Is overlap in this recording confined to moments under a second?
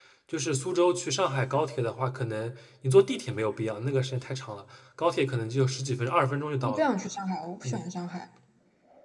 Yes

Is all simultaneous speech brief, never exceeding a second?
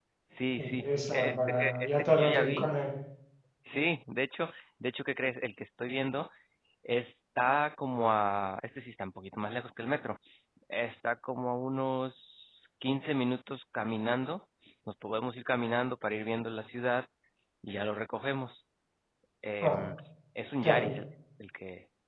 No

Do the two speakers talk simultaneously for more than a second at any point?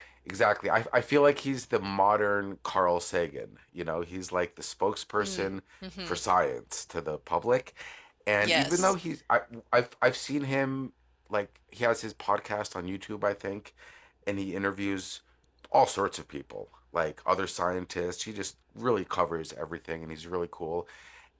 No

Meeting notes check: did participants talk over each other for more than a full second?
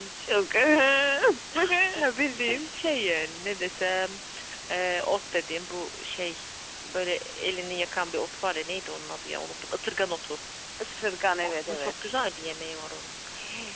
No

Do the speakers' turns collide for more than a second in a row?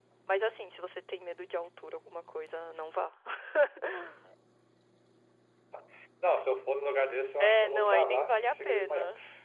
Yes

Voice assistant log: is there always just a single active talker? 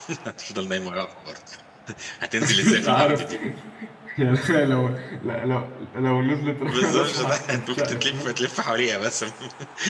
No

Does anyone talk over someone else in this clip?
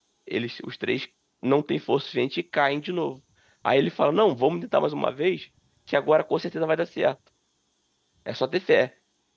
No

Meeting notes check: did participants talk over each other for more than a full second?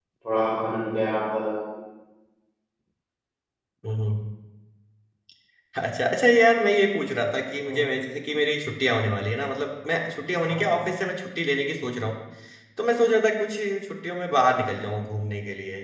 No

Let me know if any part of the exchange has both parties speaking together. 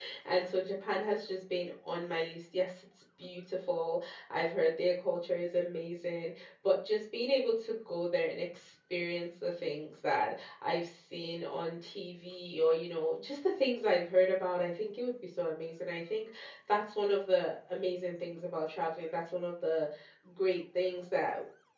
No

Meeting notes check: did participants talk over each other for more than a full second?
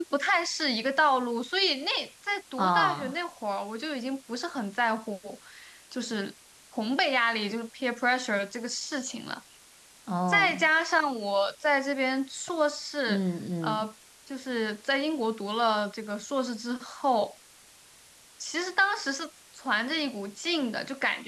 No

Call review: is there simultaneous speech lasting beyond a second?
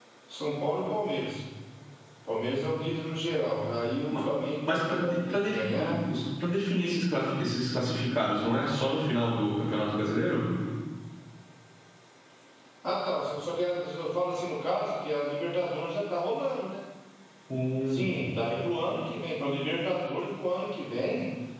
Yes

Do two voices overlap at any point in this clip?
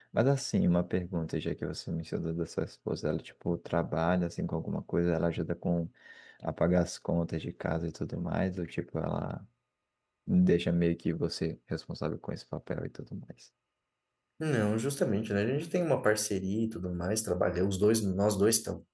No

